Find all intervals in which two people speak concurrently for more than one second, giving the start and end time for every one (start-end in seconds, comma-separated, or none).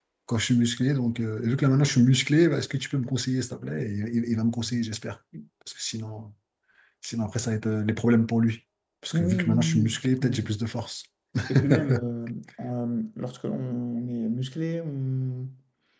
9.1-10.5